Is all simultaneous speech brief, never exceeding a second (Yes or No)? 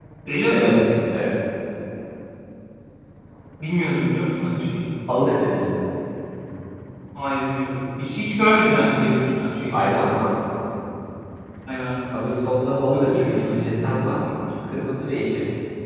No